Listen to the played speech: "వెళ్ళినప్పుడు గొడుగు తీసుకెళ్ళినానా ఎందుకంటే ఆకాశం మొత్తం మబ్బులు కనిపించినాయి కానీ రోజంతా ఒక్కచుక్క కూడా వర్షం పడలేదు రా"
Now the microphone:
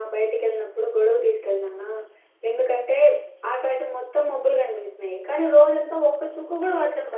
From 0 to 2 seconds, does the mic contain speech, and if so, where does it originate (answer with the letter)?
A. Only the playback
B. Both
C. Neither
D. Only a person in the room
A